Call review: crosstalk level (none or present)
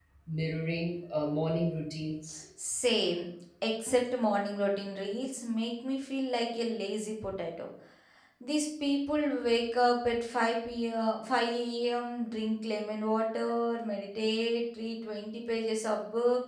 none